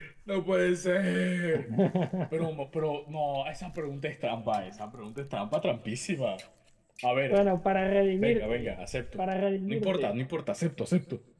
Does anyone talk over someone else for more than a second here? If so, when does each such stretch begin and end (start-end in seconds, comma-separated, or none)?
none